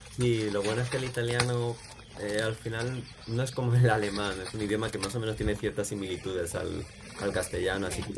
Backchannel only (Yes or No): Yes